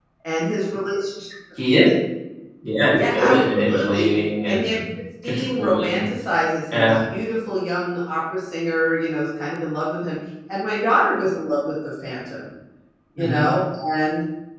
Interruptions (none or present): present